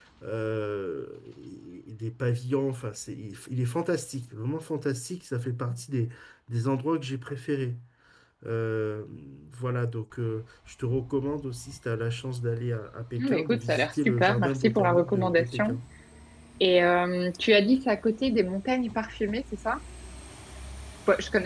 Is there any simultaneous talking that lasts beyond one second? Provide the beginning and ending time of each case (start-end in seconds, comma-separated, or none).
13.2-15.8